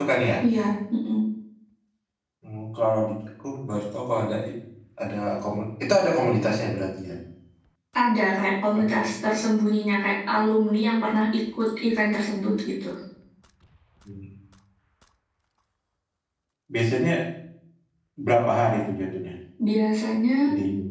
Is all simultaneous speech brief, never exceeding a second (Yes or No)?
Yes